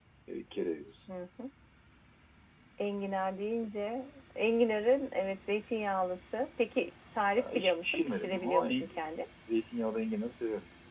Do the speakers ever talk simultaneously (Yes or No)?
Yes